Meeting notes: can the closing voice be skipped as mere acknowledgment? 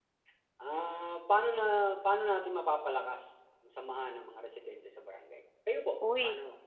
No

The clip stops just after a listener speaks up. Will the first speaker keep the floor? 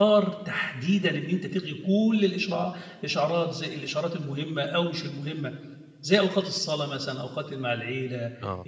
Yes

